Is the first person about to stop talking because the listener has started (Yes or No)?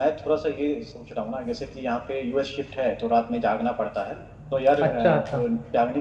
No